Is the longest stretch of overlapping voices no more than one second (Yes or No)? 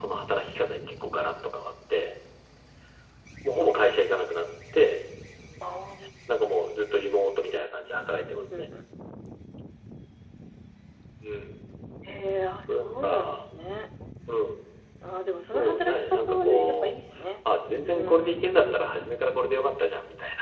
No